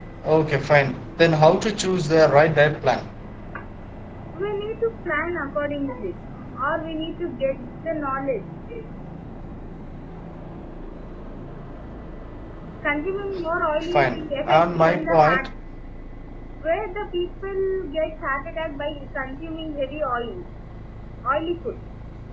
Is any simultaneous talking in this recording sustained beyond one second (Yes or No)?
Yes